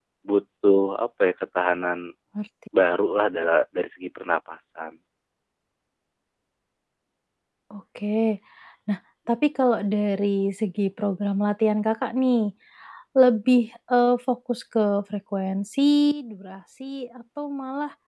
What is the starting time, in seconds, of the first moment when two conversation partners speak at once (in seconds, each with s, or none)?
none